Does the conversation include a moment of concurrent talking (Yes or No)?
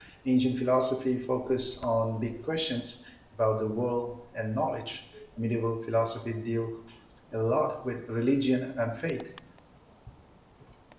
No